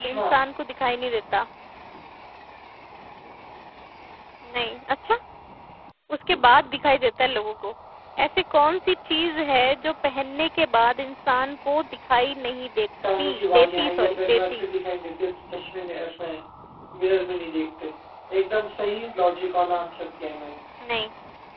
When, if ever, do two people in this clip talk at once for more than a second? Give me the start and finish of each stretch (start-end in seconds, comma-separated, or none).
13.2-14.6